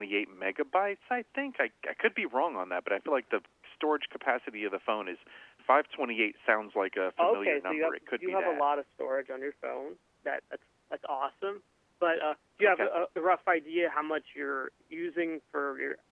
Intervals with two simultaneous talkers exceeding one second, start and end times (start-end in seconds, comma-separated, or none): 7.2-8.6